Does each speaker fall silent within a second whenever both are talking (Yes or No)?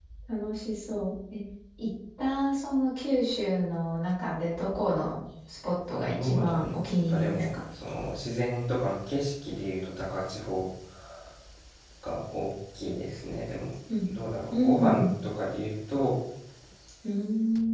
No